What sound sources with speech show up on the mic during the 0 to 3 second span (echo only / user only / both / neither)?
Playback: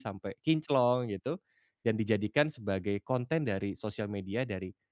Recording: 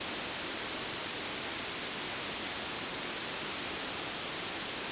neither